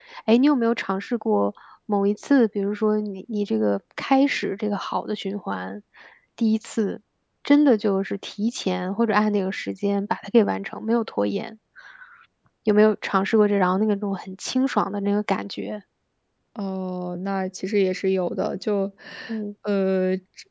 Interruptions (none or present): none